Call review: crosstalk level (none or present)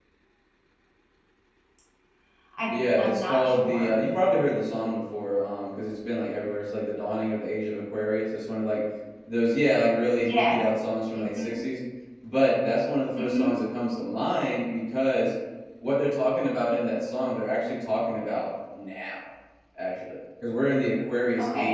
present